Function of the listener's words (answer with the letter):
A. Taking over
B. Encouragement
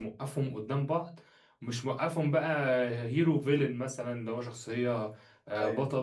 B